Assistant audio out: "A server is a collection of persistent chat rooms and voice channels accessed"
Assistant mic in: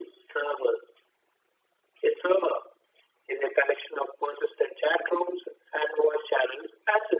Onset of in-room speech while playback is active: none

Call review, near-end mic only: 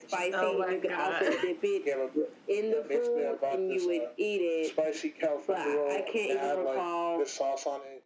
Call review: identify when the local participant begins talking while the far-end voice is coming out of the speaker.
0.3 s

